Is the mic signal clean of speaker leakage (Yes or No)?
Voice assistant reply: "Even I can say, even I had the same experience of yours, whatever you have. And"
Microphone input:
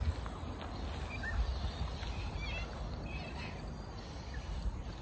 Yes